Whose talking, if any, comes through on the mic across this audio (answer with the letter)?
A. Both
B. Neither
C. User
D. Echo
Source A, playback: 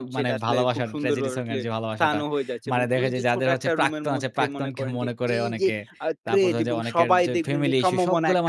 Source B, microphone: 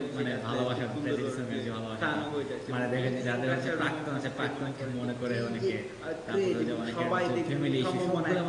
D